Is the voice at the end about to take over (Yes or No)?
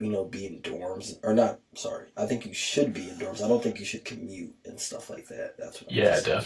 Yes